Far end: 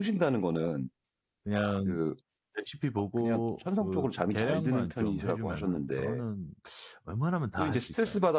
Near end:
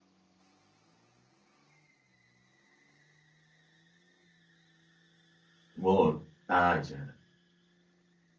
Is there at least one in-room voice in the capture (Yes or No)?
Yes